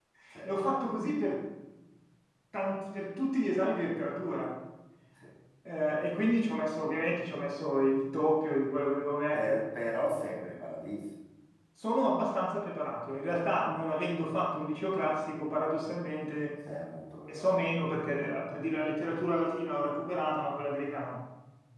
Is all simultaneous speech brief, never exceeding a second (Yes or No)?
Yes